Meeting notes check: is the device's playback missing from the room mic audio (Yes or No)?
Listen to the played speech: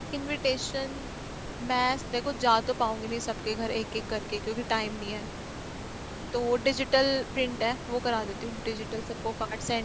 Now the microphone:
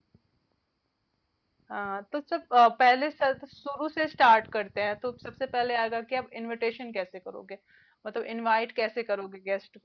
Yes